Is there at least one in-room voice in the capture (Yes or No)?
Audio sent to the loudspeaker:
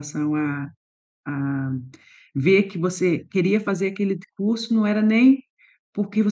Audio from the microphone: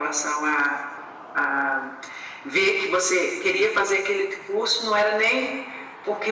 No